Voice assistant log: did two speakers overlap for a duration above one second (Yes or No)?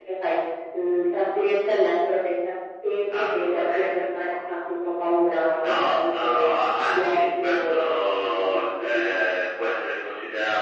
Yes